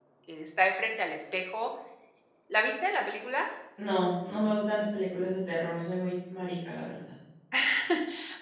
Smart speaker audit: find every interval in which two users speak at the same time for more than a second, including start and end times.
none

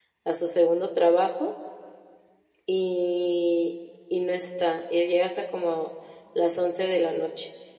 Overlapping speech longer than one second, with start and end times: none

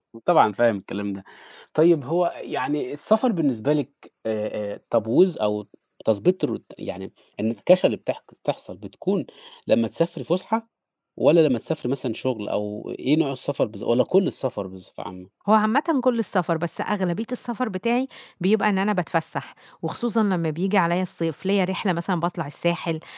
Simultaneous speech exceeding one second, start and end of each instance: none

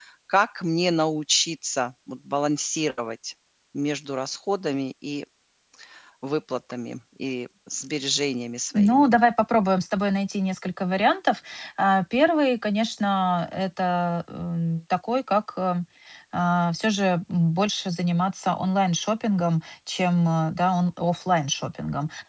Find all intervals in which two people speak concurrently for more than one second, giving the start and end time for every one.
none

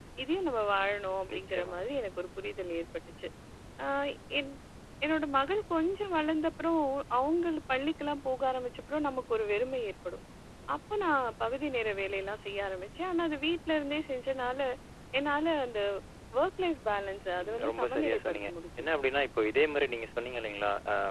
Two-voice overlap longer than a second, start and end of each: 17.4-18.9

